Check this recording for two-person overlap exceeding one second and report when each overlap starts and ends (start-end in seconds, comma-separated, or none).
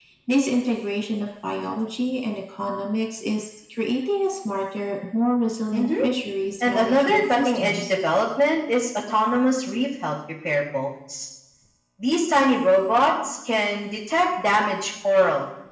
6.6-7.9